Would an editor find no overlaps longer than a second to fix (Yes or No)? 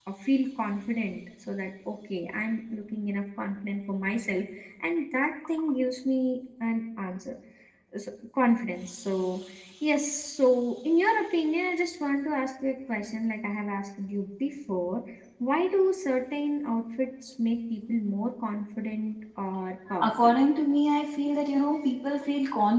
Yes